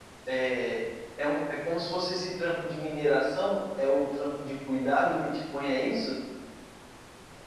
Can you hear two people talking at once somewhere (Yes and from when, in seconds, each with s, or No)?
No